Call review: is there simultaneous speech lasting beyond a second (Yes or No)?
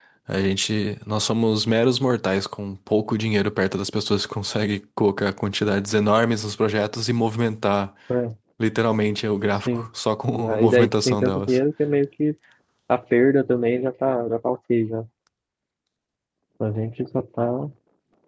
Yes